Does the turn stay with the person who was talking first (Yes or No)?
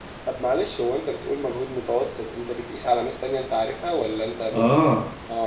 No